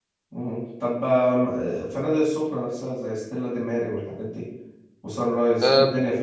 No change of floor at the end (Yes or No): No